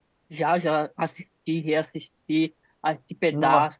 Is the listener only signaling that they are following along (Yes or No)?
Yes